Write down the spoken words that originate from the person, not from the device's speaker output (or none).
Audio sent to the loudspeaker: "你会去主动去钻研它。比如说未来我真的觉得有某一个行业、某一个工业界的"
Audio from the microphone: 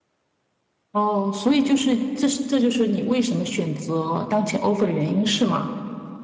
哦，所以就是这是这就是你为什么选择当前 offer 的原因是吗？